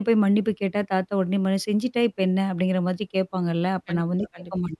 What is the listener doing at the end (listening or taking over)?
listening